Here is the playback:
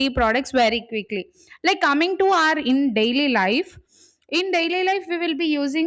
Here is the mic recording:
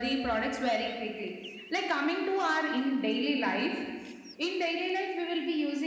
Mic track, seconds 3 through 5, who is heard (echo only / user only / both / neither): echo only